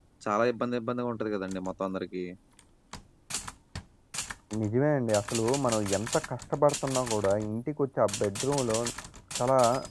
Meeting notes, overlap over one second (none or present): none